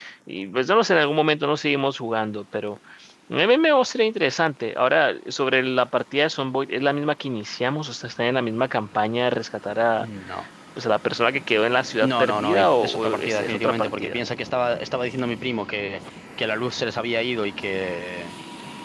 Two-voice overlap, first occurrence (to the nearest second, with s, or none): 12 s